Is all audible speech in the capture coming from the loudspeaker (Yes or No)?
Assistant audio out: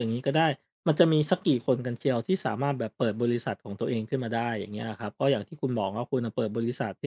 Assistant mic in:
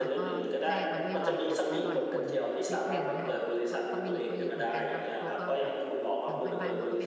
No